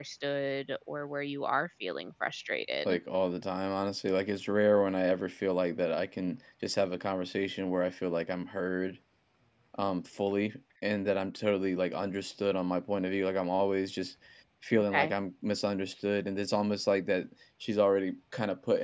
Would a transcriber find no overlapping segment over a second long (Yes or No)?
Yes